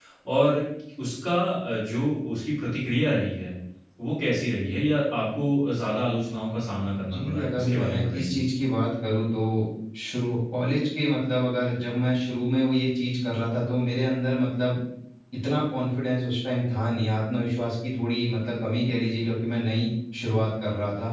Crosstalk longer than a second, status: present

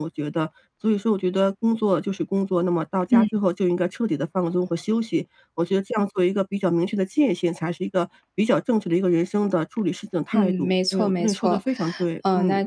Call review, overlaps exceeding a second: present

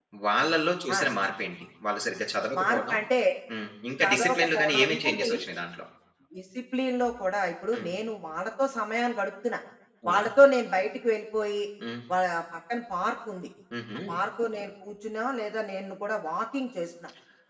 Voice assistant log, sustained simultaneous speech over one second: present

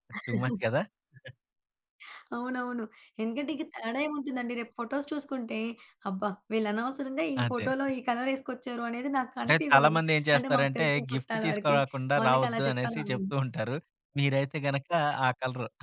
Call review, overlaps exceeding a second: present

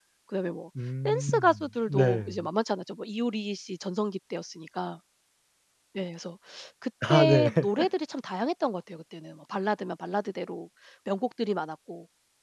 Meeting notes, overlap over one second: present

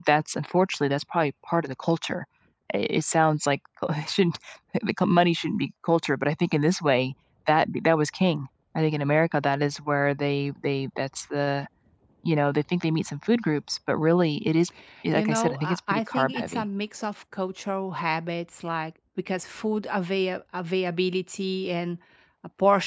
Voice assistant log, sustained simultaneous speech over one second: present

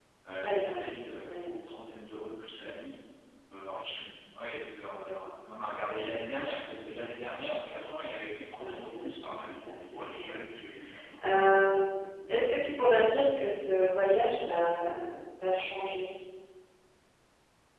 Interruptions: present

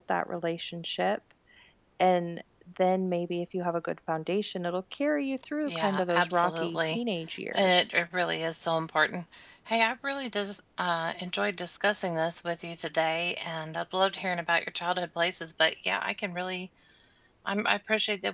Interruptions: present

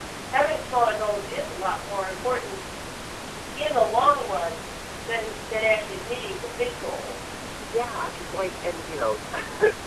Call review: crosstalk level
none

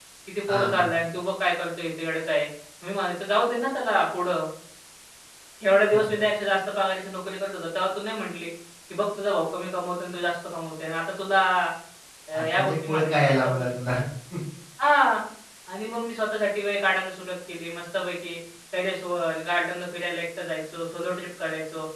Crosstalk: present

